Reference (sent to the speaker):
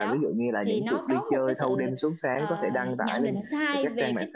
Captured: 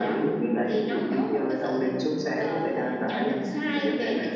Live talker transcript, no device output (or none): none